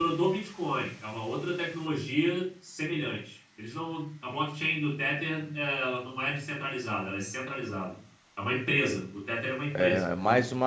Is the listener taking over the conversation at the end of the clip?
Yes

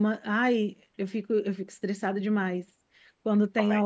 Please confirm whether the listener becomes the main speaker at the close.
No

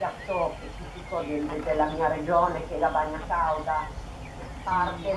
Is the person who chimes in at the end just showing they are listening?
Yes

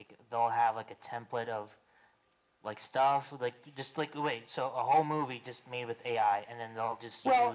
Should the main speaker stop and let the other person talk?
Yes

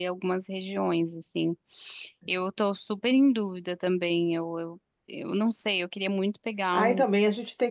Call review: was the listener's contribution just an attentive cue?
No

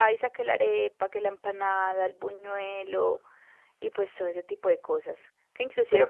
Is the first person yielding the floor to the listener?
No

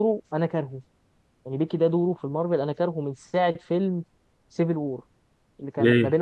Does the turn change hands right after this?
No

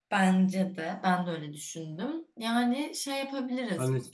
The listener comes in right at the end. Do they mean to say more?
Yes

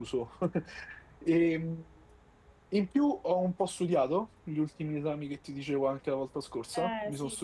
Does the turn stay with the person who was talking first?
No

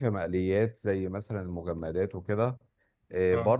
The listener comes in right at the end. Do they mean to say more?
No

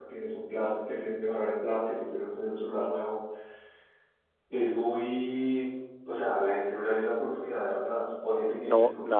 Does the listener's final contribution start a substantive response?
Yes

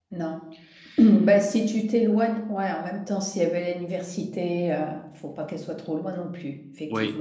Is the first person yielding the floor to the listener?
Yes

